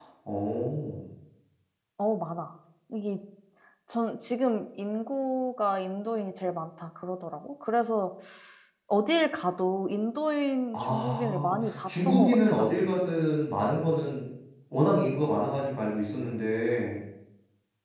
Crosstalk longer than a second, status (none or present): present